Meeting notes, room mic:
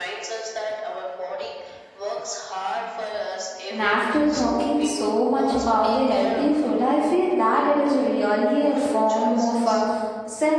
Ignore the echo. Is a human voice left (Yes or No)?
Yes